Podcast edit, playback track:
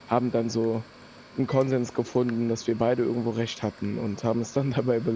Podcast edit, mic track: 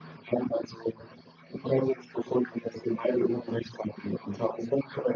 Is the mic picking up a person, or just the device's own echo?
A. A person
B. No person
B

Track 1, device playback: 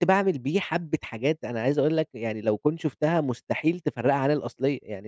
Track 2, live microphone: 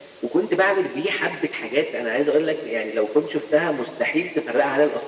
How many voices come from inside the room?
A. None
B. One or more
A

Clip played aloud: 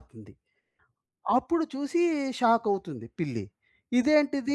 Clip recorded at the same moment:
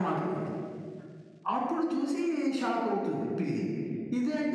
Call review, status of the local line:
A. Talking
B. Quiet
B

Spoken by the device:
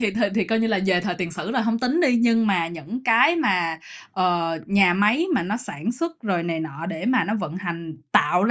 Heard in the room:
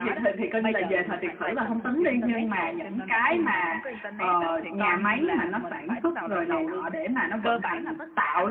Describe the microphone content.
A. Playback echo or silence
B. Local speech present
B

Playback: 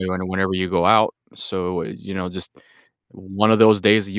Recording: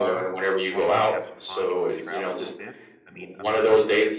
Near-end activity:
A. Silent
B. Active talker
B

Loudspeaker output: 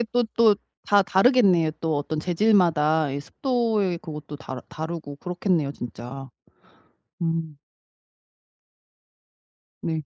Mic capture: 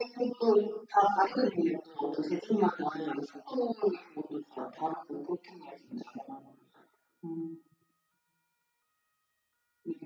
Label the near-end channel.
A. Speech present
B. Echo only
B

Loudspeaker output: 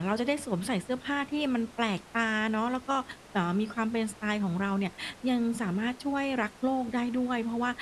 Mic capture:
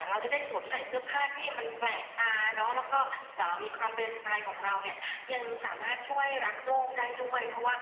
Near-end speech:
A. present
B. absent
B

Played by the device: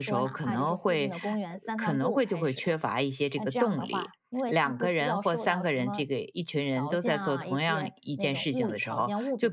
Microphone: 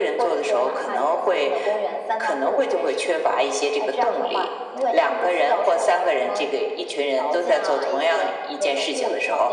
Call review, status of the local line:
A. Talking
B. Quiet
B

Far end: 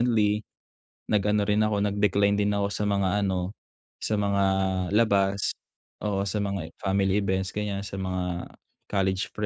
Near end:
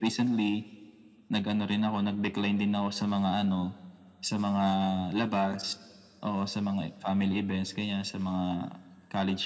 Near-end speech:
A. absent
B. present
A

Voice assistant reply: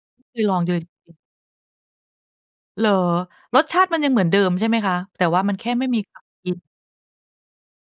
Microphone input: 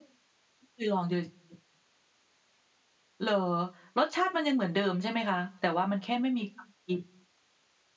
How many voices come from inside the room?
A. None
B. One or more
A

